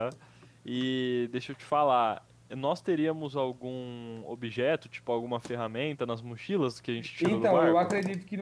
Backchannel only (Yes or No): No